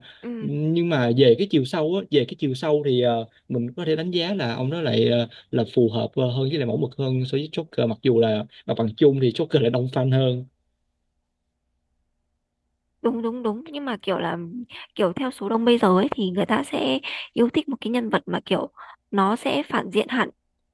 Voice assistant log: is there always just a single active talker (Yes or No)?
Yes